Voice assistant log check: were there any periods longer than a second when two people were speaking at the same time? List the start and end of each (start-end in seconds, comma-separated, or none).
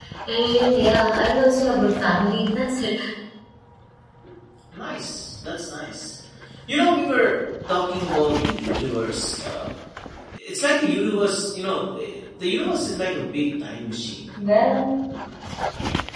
none